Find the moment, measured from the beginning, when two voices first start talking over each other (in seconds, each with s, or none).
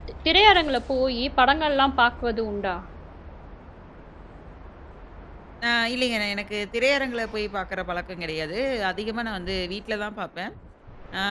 none